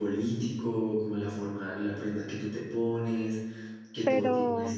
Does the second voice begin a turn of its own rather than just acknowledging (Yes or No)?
No